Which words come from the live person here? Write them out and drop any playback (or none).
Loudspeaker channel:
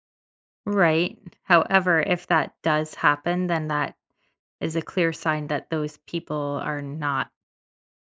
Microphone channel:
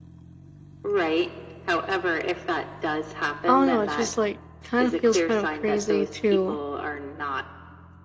I don't know, it just, like, kind of feels kind of crazy to